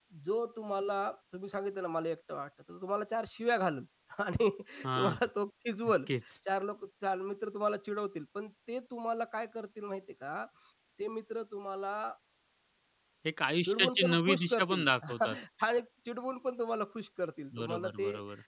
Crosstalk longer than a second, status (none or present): present